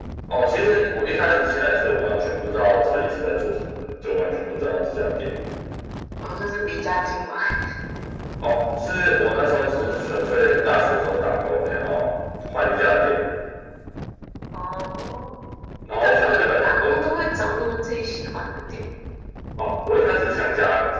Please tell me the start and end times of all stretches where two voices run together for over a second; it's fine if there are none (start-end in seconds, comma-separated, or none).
15.9-17.2